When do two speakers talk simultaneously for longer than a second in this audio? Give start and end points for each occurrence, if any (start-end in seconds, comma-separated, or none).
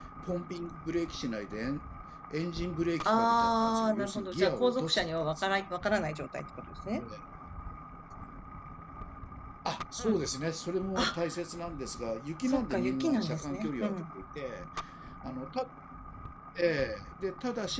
3.0-5.6, 12.4-14.1